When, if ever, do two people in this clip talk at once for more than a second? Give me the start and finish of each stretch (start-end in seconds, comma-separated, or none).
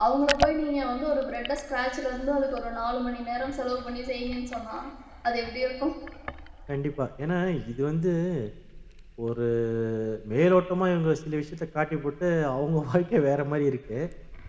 none